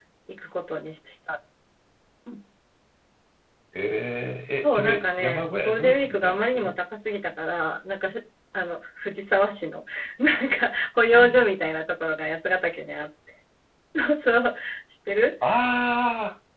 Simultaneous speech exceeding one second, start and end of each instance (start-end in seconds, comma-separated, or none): 4.6-6.8